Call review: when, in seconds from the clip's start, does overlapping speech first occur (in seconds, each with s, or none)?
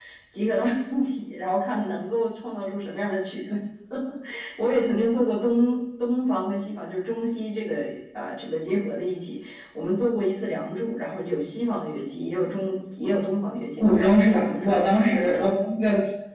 13.8 s